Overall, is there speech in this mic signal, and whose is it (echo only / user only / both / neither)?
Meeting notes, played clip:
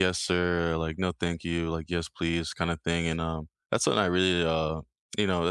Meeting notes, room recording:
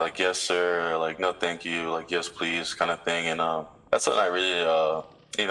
echo only